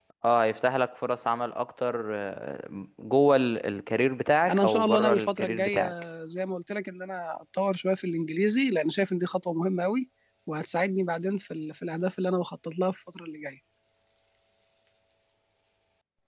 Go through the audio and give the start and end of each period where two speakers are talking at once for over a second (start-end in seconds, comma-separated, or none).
4.5-5.8